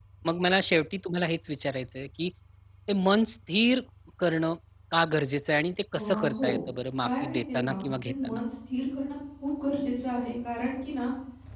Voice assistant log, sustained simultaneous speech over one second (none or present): present